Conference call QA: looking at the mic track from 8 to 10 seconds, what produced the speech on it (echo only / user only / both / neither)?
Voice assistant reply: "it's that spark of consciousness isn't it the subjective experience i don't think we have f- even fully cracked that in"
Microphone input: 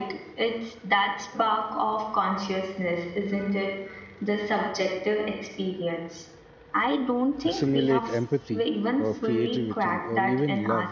both